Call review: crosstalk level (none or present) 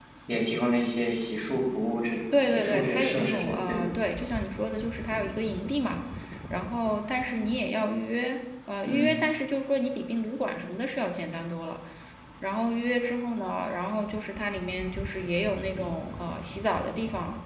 present